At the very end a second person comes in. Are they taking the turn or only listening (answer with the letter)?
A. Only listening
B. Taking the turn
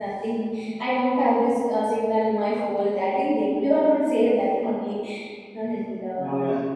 B